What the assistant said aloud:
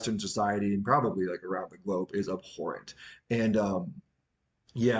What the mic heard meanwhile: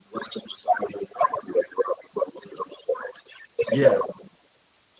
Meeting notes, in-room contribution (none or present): present